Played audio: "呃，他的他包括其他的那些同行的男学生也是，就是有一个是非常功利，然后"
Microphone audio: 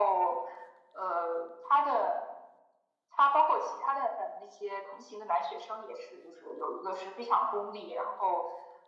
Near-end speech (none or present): none